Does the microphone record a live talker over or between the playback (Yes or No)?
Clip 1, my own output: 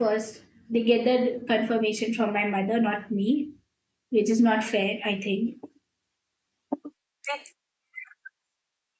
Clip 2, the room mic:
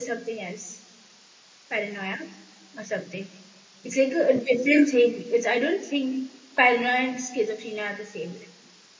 Yes